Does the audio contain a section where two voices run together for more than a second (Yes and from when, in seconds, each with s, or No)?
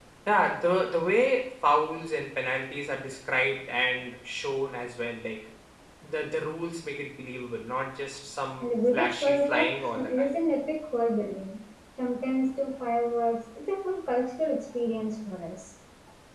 Yes, from 8.6 s